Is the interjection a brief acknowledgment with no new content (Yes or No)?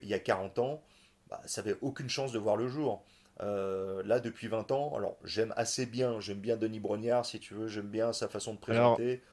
Yes